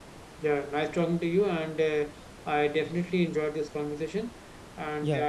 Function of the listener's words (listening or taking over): listening